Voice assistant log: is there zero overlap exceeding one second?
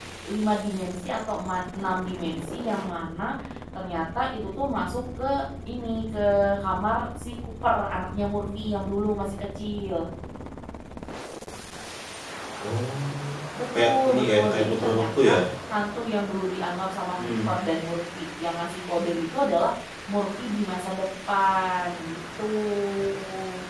No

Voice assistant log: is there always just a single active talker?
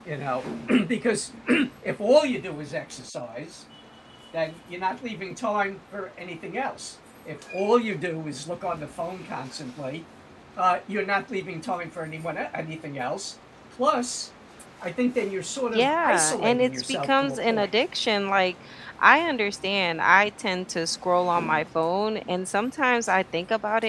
No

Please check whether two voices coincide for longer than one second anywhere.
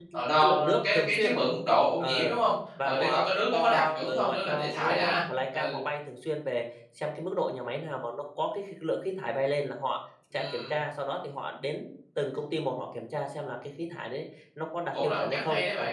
Yes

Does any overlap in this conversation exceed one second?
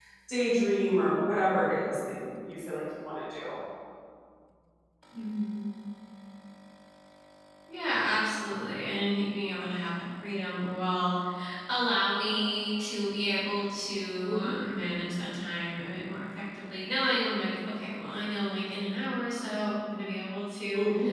No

